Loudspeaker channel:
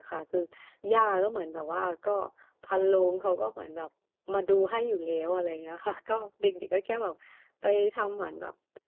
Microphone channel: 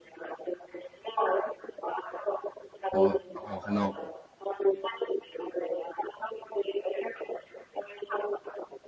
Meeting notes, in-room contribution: present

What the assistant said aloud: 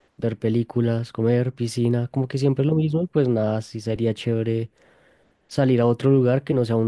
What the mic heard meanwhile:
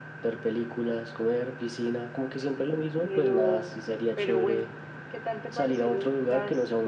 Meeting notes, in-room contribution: present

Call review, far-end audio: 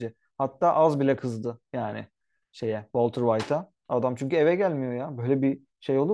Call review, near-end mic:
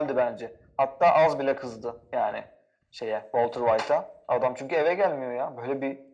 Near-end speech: none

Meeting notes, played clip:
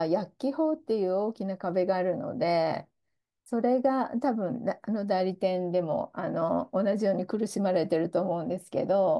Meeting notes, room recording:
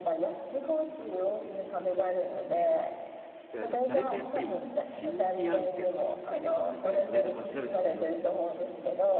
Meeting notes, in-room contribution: present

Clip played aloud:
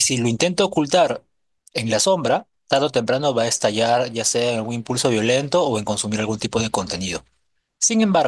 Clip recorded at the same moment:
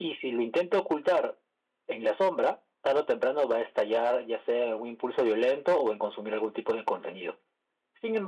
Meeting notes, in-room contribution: none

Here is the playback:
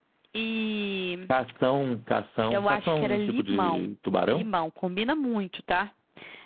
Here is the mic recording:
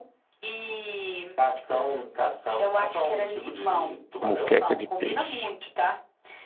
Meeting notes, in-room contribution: present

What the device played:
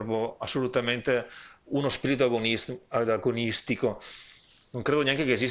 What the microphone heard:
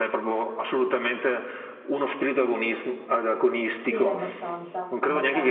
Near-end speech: present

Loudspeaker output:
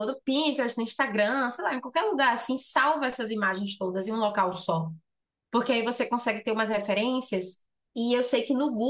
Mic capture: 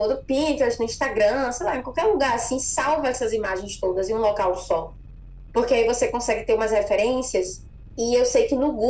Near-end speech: none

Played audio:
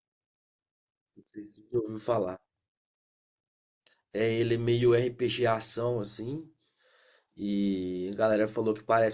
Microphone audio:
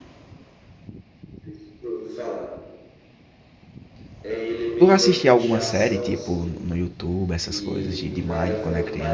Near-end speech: present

